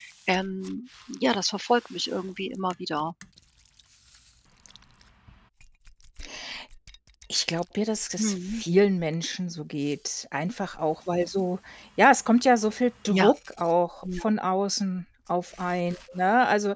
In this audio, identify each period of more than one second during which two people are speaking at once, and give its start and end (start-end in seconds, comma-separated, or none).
none